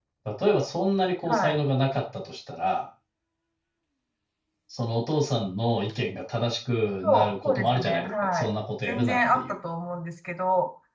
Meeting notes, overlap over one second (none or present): present